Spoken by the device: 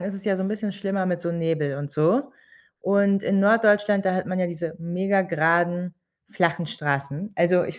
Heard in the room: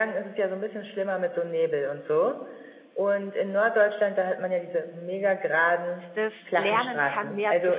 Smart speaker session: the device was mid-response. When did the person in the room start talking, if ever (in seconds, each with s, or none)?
6.1 s